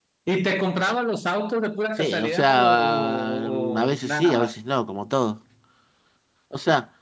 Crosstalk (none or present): present